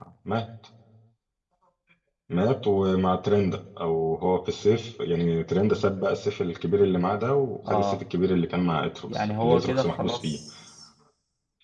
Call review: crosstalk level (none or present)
present